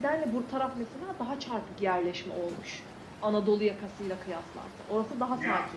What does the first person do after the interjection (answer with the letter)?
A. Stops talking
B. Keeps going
A